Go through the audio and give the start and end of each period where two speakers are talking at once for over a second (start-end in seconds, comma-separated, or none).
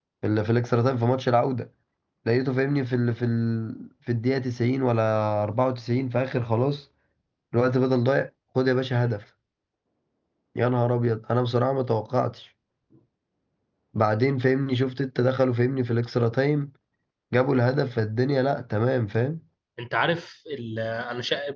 none